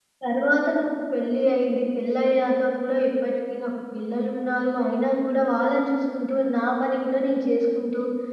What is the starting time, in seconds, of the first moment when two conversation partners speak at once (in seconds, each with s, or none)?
none